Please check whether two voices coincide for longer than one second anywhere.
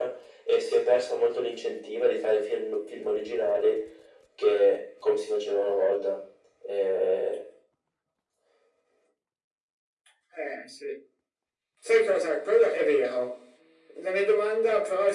No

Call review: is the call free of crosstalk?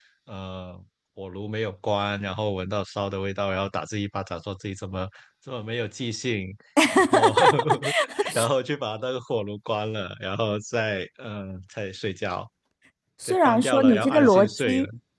No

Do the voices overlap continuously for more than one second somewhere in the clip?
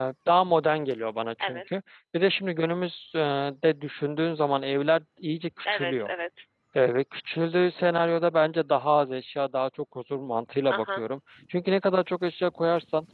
No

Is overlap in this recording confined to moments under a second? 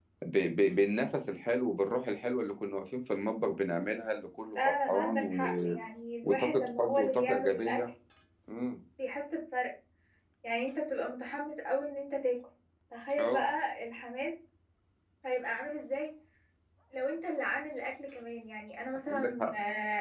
No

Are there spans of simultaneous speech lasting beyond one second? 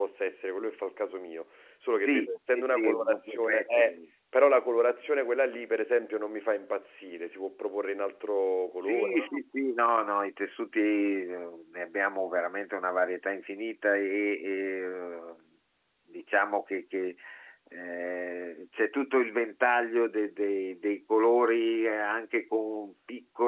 Yes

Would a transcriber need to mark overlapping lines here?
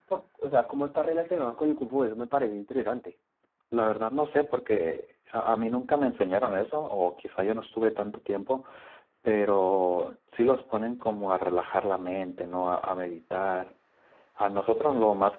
No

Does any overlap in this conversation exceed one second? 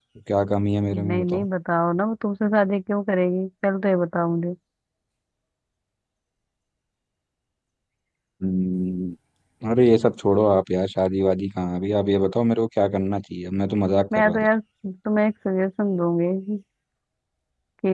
No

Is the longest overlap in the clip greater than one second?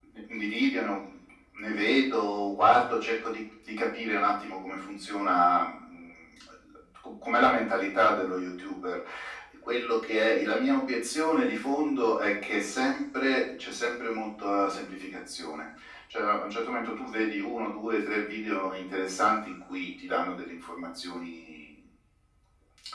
No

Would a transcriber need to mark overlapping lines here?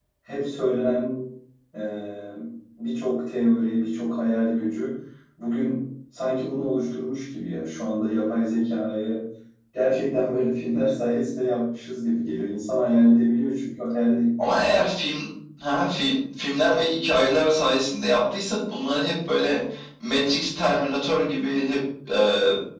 No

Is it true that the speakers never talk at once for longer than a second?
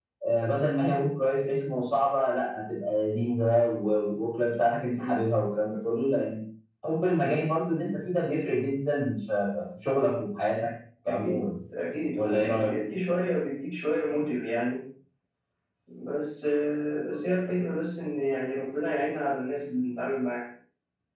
Yes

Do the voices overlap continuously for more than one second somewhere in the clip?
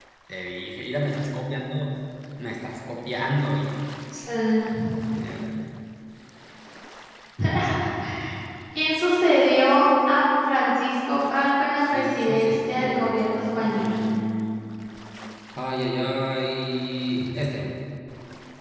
Yes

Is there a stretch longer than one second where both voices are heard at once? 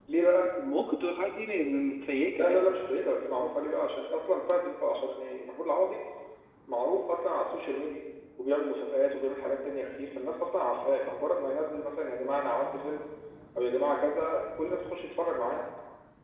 No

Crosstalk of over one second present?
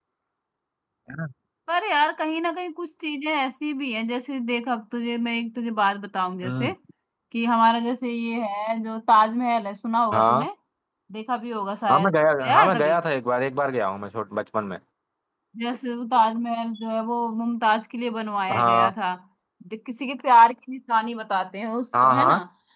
No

